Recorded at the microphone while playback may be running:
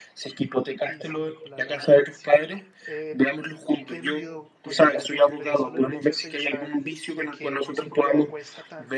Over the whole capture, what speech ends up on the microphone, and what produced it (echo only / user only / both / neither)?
both